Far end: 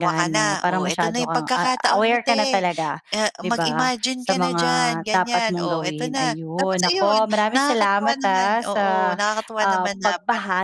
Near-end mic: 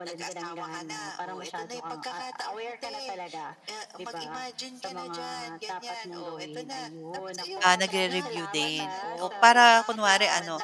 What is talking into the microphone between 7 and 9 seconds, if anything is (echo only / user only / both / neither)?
both